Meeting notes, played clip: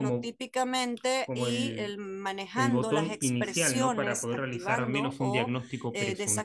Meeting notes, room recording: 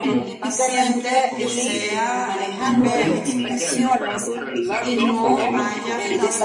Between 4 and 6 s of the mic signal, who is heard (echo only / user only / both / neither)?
both